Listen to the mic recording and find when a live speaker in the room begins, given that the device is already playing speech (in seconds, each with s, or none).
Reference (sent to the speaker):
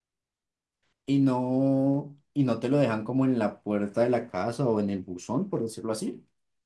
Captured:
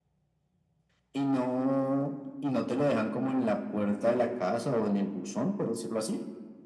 none